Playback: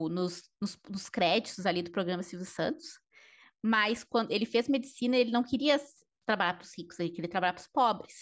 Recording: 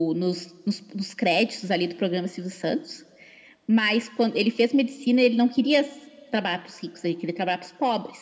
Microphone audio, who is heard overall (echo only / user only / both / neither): echo only